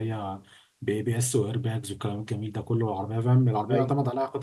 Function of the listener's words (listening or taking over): listening